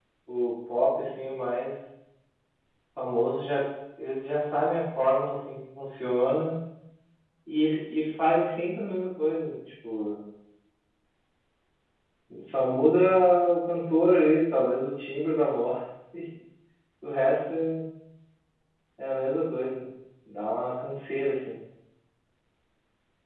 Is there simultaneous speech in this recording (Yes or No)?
No